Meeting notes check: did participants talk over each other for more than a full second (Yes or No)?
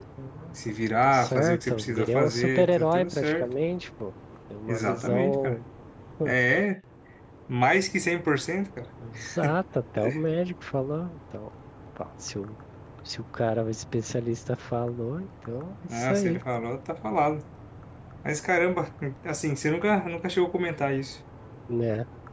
Yes